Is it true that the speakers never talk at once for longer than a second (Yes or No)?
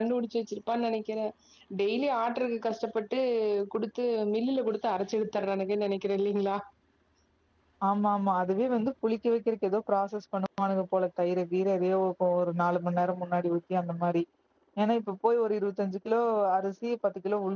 Yes